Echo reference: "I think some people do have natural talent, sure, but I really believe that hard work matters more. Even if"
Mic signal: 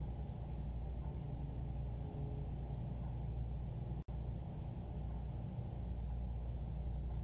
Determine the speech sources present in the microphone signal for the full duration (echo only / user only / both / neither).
neither